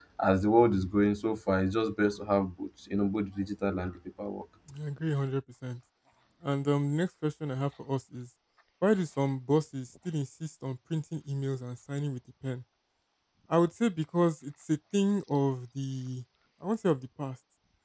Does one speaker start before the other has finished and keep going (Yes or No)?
No